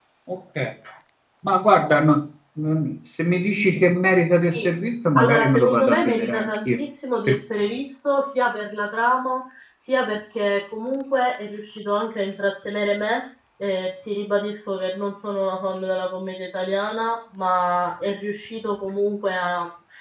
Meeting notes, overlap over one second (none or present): present